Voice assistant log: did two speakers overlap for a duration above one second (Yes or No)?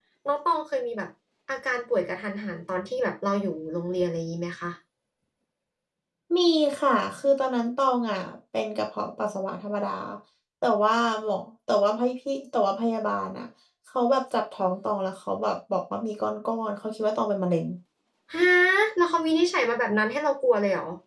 No